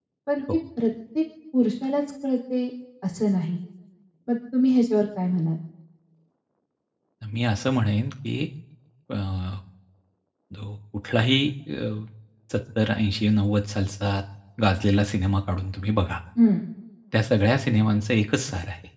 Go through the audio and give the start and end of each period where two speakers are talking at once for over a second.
none

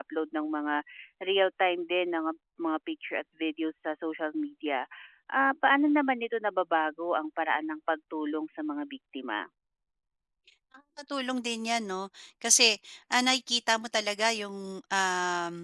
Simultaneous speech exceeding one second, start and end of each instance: none

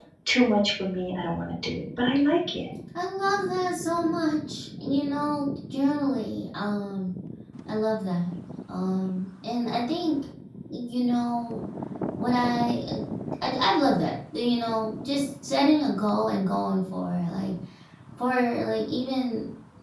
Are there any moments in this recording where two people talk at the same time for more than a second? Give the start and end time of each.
none

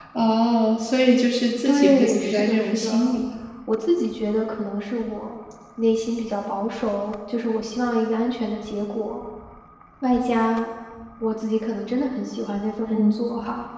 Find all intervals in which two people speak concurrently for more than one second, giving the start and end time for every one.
1.6-3.2

